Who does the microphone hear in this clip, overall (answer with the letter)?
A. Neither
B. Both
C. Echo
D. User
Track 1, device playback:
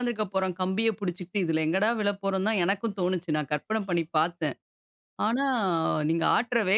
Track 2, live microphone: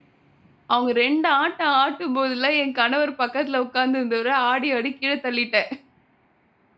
D